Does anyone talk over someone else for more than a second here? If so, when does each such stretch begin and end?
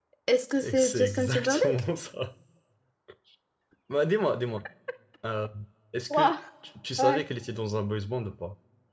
0.6-1.8

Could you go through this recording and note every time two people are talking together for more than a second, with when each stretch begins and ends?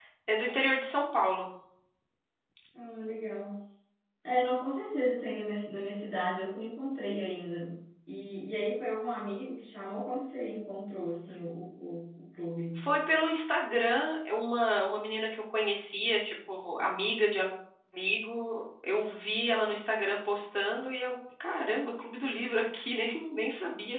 none

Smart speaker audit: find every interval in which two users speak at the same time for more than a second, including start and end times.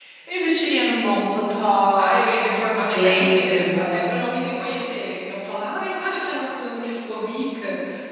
2.0-4.3

